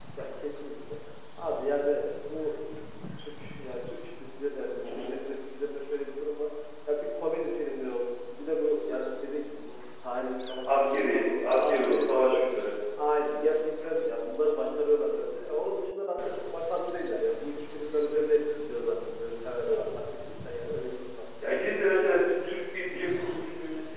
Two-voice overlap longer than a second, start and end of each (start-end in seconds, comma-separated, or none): 10.7-12.4